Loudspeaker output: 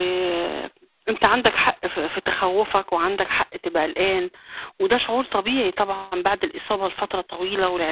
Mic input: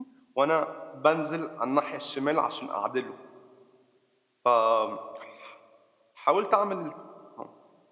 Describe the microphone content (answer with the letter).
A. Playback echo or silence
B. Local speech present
B